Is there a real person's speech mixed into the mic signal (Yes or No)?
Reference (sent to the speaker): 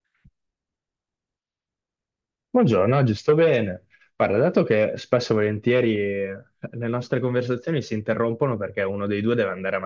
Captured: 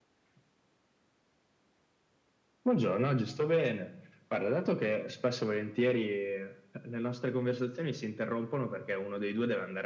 No